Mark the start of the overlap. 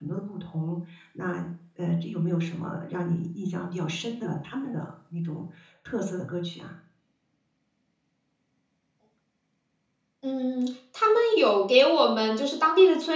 none

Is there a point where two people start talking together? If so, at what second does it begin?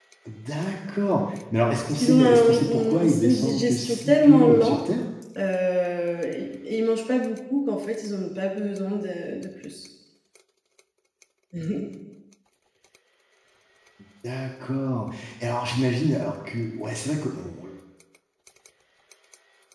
2 s

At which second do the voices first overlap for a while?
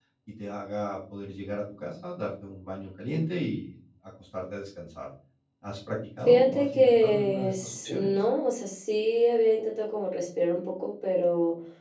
6 s

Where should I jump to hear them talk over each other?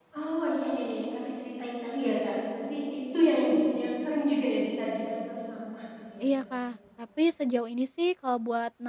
none

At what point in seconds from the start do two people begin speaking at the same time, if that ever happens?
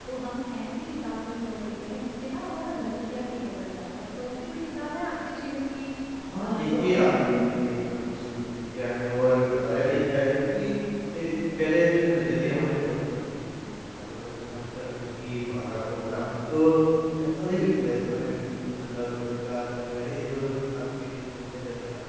6 s

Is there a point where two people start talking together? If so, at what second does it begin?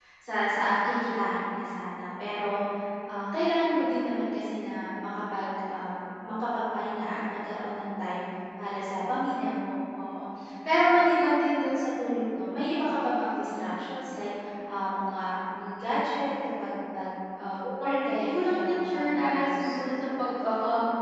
18 s

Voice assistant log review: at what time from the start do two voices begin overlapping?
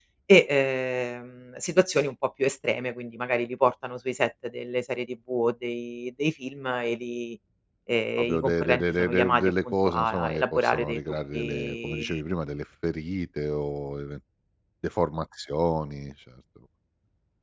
8 s

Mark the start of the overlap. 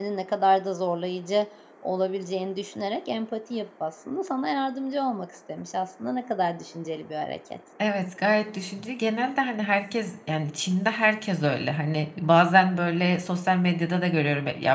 none

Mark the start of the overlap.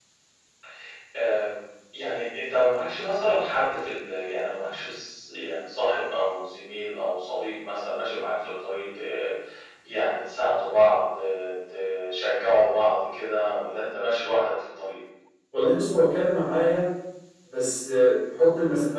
none

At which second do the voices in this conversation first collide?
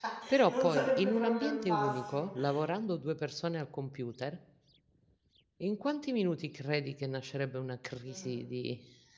1 s

